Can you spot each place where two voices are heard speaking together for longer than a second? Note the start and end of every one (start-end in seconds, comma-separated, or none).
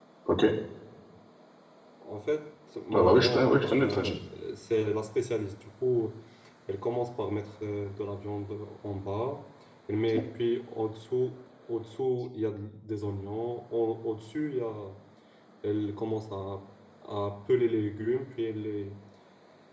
2.9-4.2